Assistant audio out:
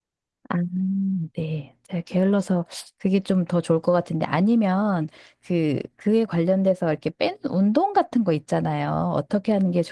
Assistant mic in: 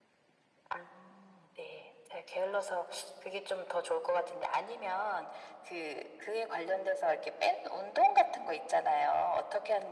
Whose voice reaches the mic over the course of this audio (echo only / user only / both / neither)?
echo only